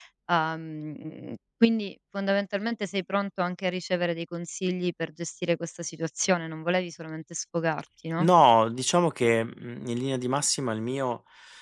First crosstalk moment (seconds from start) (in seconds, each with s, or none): none